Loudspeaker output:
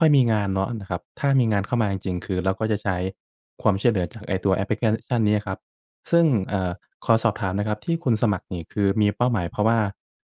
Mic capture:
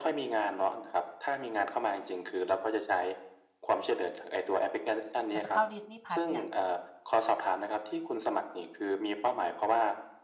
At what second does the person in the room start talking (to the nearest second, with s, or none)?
5 s